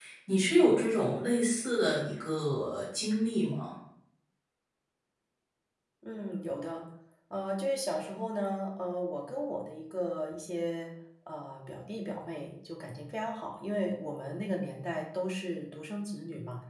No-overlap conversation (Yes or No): Yes